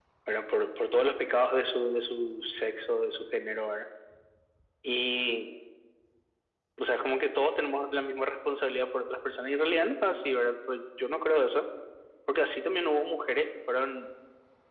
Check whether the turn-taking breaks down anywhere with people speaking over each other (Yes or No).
No